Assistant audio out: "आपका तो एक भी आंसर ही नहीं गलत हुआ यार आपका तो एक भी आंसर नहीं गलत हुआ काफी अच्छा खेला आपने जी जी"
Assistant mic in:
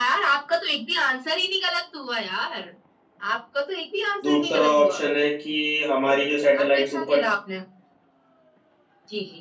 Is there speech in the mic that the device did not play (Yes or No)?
Yes